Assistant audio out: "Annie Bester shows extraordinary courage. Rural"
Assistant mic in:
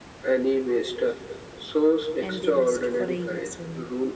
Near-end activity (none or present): present